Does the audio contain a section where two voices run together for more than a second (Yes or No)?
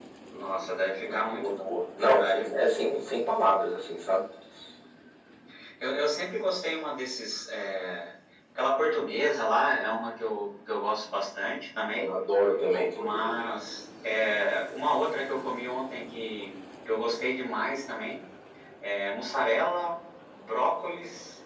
Yes